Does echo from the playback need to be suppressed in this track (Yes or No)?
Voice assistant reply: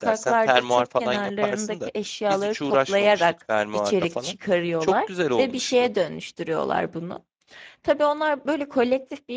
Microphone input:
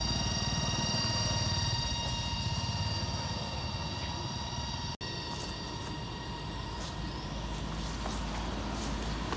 No